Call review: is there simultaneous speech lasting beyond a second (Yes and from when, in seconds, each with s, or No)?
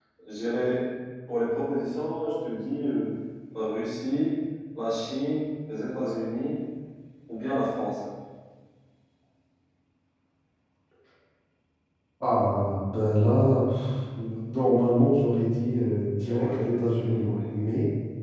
Yes, from 16.3 s